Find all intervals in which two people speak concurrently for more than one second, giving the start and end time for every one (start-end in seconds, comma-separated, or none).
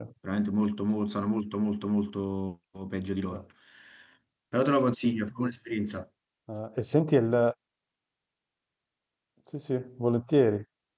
none